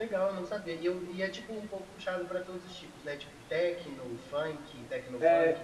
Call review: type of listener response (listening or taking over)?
taking over